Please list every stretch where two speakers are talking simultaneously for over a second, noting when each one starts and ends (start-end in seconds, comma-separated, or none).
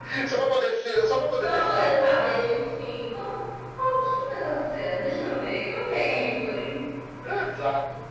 none